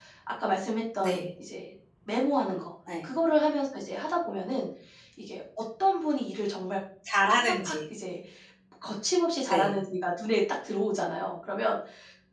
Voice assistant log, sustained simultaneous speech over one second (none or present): none